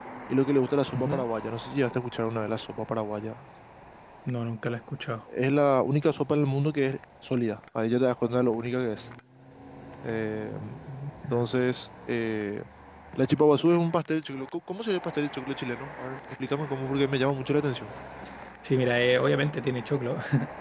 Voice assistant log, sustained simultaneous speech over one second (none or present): none